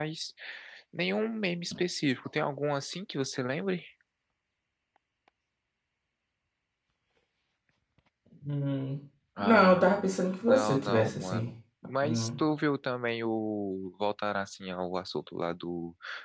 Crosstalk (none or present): present